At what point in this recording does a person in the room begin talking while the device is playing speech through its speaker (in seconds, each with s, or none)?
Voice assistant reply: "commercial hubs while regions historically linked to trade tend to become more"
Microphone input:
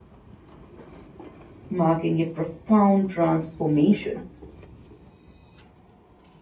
1.7 s